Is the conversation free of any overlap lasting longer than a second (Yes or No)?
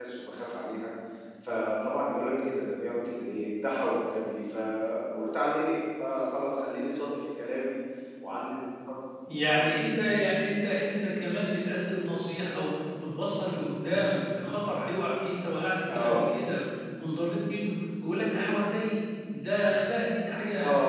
Yes